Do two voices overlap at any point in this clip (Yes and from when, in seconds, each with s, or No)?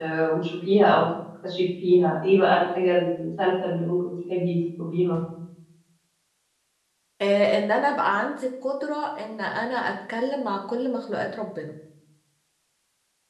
No